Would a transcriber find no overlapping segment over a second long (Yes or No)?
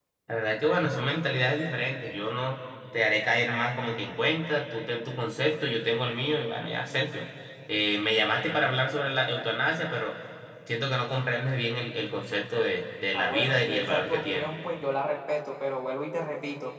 No